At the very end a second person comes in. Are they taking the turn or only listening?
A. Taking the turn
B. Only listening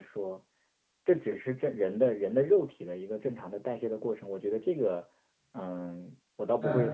A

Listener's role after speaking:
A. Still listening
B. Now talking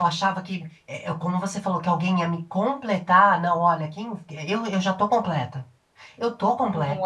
B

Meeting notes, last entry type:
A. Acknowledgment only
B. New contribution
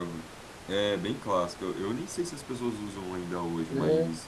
A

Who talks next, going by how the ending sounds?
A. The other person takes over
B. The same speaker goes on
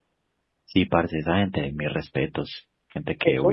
A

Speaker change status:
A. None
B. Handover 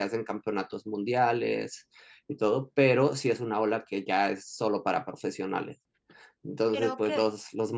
A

